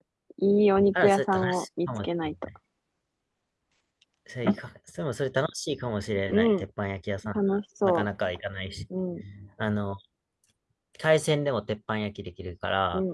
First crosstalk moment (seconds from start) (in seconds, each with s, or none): 0.9 s